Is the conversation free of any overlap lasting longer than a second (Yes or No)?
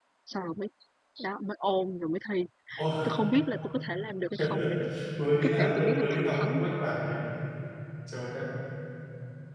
No